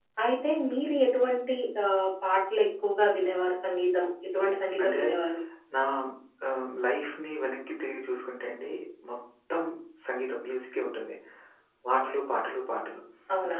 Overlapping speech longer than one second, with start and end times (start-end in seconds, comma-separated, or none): none